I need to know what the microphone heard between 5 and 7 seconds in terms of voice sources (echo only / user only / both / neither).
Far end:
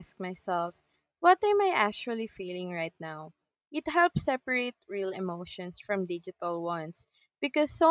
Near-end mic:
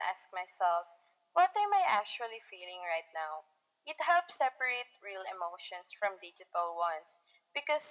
echo only